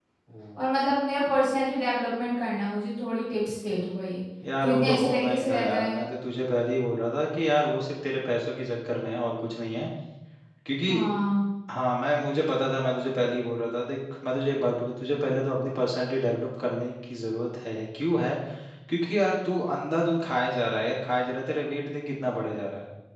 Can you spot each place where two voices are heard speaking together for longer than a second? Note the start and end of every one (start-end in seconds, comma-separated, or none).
4.6-6.0